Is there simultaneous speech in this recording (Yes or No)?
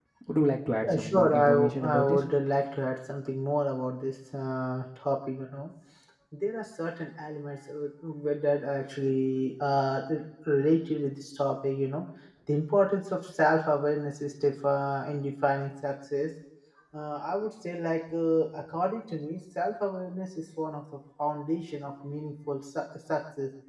Yes